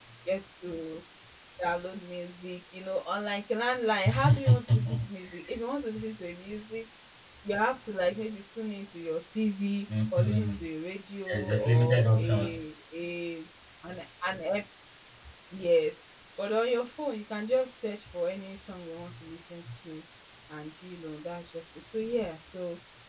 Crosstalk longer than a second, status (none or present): present